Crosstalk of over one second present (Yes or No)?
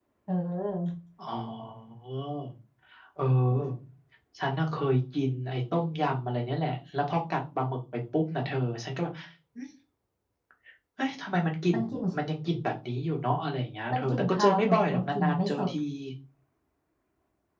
Yes